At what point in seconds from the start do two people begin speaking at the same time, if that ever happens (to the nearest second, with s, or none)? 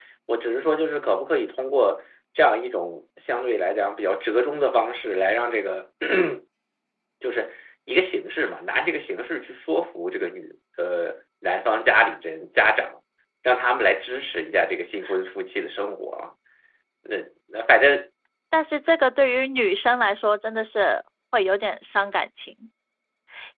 none